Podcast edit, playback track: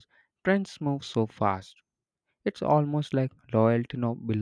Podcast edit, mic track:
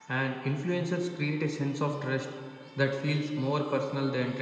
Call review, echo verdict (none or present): none